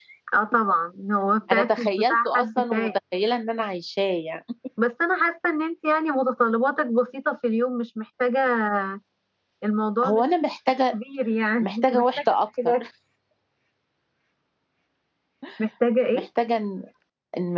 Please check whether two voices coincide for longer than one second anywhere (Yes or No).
Yes